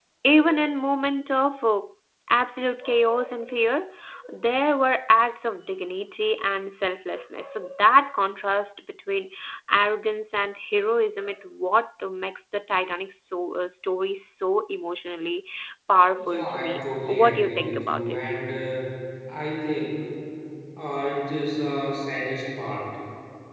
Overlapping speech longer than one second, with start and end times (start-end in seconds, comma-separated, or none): 16.2-18.3